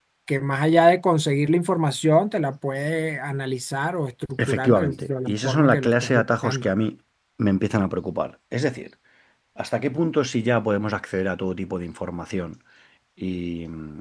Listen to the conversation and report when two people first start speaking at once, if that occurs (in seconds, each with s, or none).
4.4 s